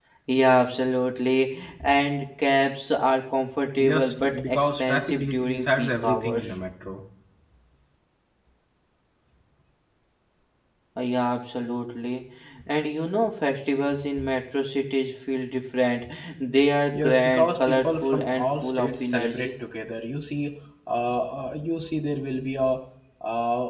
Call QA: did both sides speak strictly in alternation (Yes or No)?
No